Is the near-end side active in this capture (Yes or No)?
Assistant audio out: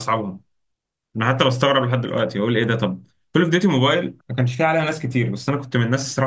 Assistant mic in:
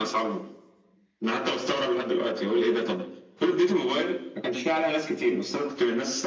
No